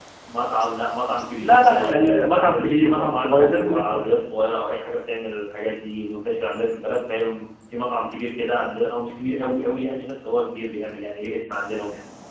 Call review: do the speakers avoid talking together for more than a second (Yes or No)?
No